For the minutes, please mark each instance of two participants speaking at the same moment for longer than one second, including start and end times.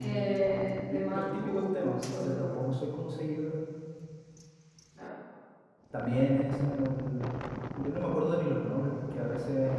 0.9-2.6

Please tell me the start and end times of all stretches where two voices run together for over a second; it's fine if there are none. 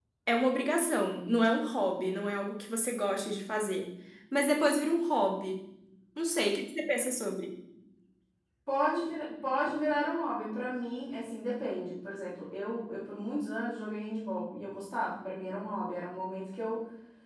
none

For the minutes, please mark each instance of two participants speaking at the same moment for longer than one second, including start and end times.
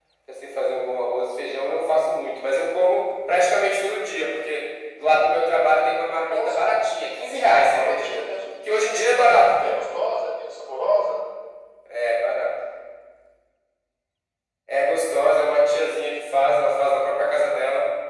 6.3-8.1

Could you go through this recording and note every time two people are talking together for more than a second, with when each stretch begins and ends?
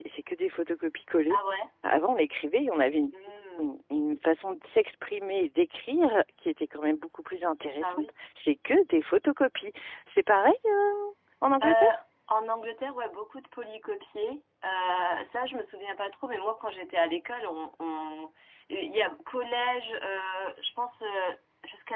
none

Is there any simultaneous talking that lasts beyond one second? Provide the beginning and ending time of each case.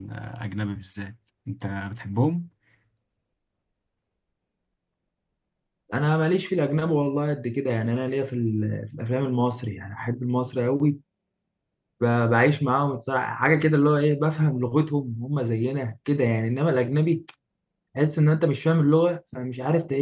none

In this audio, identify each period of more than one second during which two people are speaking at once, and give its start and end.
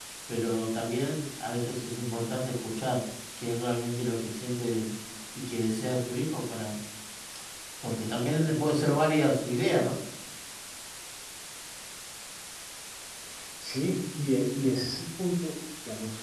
none

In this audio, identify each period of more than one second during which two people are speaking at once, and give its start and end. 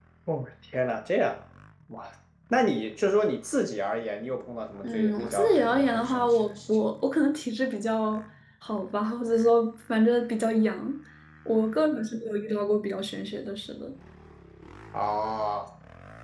4.8-6.5

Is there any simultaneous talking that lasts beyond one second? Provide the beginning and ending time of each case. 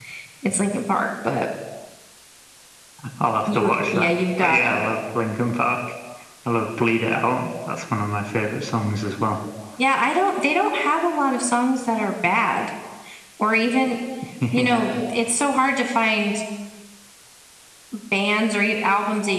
3.5-4.8

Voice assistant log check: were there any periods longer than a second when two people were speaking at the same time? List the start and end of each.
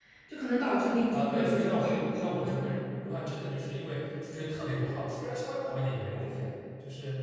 1.1-2.5

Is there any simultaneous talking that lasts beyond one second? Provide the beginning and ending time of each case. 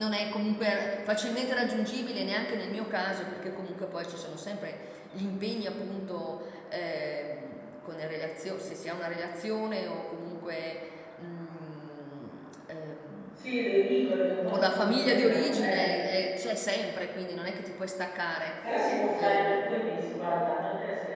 14.5-15.9

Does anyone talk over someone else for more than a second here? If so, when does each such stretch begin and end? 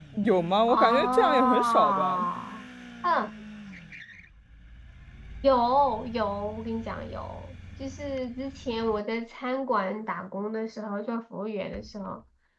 0.7-2.2

